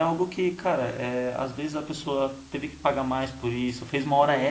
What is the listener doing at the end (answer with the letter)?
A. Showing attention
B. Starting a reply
A